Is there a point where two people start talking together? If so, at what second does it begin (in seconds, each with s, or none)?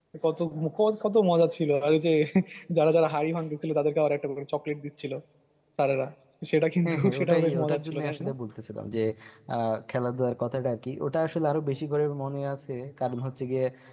6.8 s